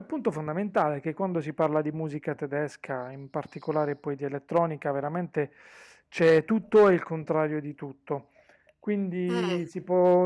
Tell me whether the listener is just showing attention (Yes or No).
Yes